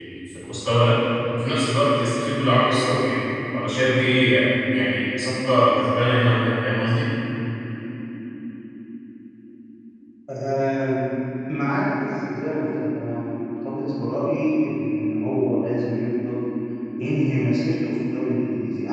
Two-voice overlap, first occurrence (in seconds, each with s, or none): none